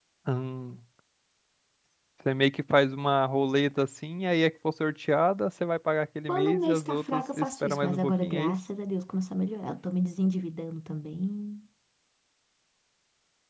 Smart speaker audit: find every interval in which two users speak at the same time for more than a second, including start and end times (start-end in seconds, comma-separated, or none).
6.3-8.5